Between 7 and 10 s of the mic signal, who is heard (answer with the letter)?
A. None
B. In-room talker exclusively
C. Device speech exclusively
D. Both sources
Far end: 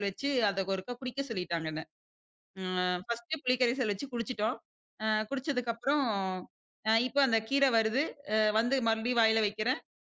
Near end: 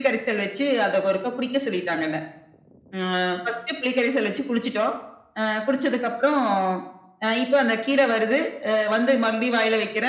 C